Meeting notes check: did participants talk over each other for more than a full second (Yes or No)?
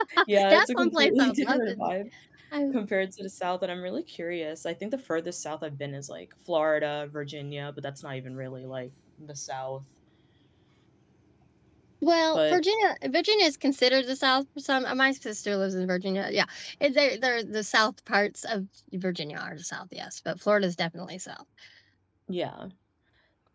Yes